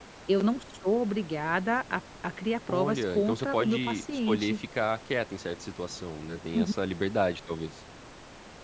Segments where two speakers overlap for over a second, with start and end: 2.7-4.6

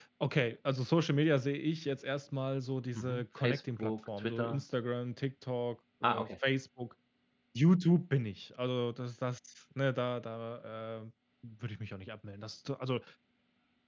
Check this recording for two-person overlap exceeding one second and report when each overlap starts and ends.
3.0-4.6

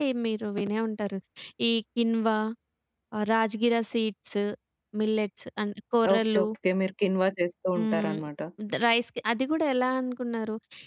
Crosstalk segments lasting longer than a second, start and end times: none

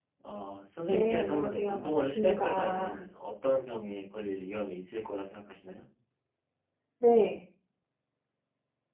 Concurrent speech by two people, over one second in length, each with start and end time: 0.9-3.0

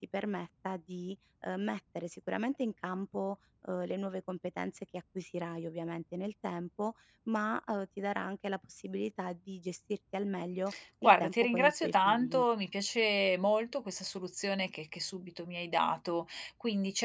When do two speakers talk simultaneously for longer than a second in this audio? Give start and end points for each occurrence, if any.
11.0-12.4

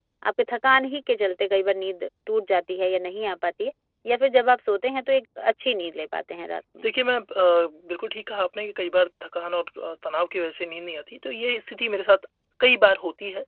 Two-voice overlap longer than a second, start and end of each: none

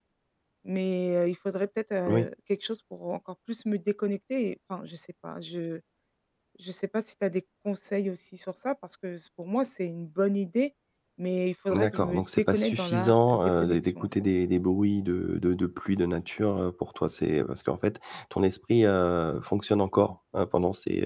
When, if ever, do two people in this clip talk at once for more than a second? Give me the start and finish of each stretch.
11.7-14.1

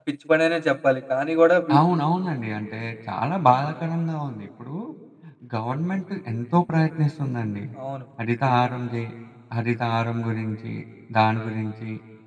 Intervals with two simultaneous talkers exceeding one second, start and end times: none

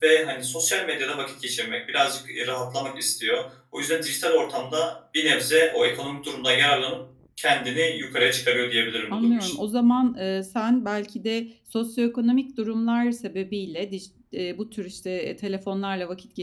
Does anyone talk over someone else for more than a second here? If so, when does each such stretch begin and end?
none

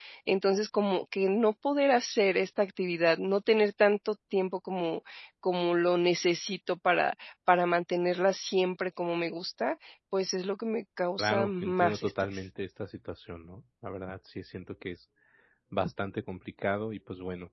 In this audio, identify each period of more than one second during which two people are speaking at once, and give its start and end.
11.2-12.4

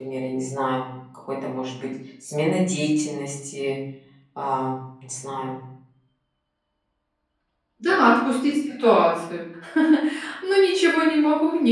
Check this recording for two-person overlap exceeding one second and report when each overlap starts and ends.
none

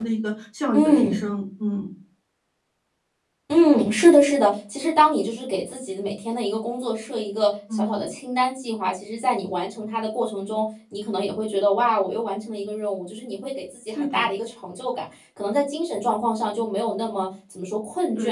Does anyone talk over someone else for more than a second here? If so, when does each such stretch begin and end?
none

